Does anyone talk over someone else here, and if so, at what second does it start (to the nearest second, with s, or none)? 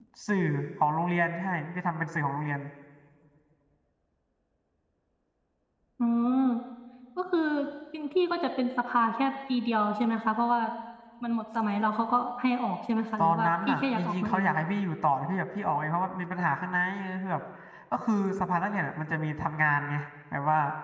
13 s